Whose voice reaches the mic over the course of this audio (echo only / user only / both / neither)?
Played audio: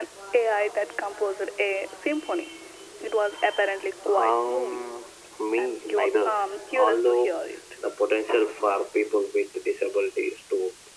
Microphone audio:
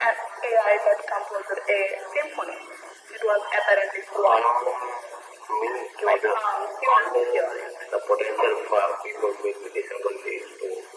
echo only